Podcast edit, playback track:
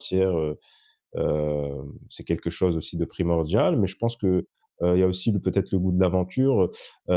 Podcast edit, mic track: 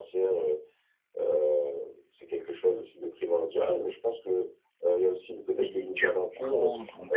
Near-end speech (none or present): present